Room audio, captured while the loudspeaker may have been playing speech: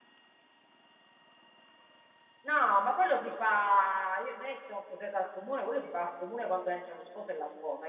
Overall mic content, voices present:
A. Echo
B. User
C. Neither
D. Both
B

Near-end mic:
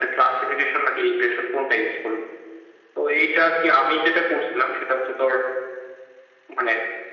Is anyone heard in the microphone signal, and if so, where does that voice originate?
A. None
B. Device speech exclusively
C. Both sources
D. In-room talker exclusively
B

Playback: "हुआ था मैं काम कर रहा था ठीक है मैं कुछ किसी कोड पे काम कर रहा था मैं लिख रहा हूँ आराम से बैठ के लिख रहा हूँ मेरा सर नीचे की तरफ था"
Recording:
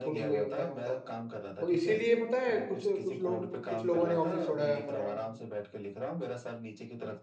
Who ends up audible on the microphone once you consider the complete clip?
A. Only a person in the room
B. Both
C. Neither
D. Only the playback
B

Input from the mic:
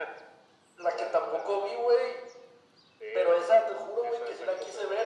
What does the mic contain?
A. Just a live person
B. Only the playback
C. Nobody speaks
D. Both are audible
B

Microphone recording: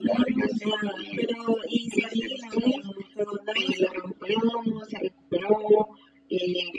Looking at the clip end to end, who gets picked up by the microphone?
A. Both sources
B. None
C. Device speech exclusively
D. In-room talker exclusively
C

